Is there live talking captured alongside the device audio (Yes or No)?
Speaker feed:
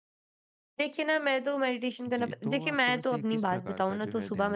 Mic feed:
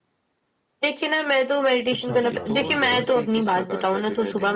Yes